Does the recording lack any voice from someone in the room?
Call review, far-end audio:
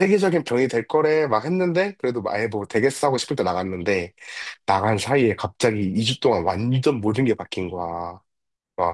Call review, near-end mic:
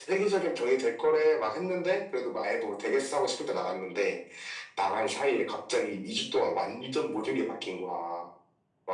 Yes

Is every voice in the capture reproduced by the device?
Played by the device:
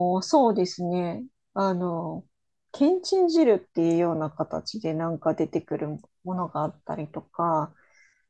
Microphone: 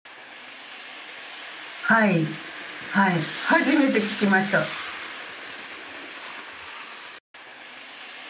No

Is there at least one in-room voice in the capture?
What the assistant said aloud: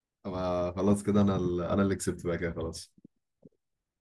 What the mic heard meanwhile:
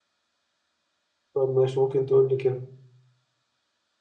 Yes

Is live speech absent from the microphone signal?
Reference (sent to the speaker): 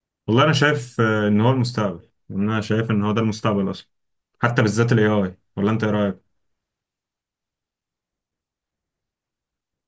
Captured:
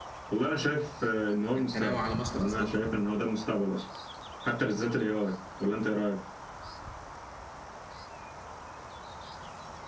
No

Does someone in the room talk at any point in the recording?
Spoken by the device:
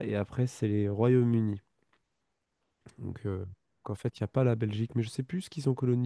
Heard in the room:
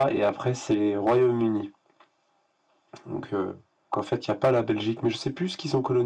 No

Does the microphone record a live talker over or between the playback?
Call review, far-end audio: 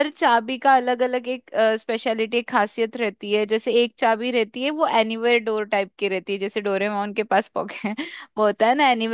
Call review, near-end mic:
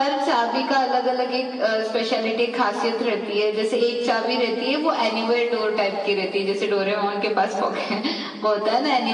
No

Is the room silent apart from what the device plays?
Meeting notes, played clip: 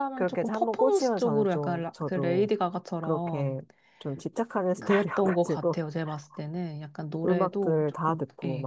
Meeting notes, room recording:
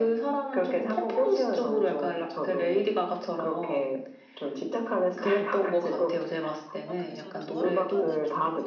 No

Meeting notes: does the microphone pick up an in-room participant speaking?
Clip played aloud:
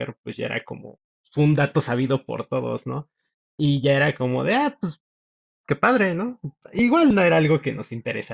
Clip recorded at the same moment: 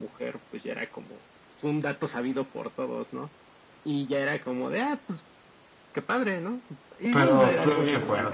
Yes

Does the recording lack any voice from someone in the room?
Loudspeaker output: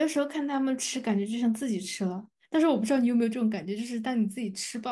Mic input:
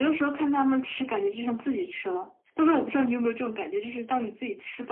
Yes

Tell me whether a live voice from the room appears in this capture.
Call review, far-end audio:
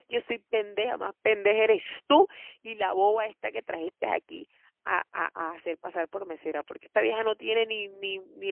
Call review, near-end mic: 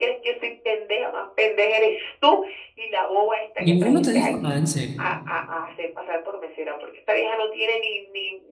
Yes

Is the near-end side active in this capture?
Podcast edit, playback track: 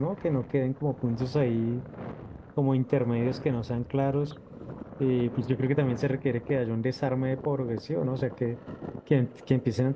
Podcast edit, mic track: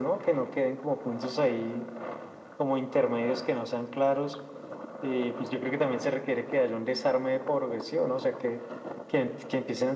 No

